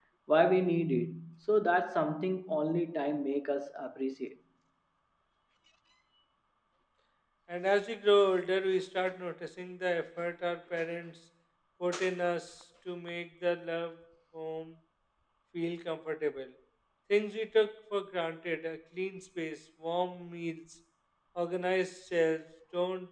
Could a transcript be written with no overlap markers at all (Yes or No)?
Yes